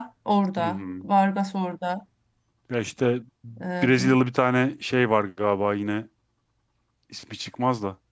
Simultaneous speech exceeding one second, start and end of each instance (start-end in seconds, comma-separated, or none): none